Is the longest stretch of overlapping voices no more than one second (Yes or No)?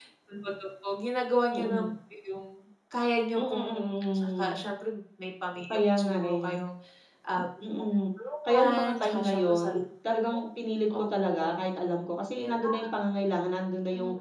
No